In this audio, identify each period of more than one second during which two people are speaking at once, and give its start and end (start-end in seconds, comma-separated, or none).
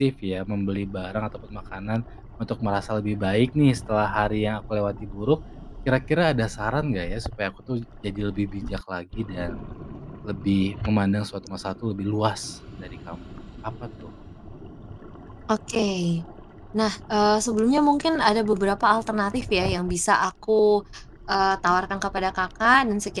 none